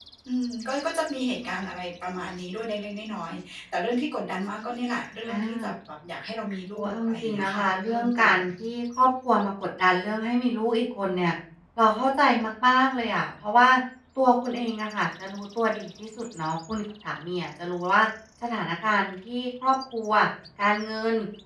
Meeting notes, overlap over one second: present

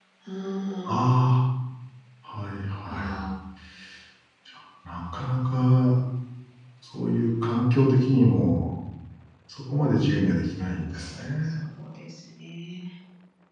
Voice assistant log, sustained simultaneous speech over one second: none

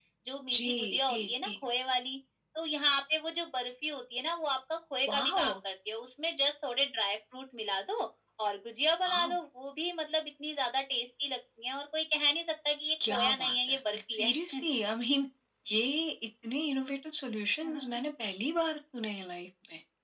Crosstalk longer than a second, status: present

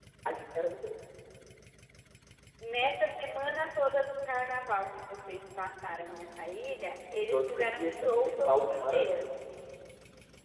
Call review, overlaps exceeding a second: present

